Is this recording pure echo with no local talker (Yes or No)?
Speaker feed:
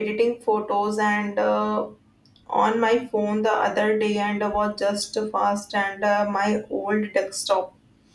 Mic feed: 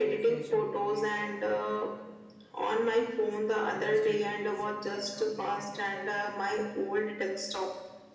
No